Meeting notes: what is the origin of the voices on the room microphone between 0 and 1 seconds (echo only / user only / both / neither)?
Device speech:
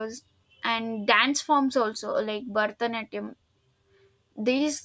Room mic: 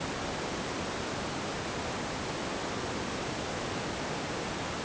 neither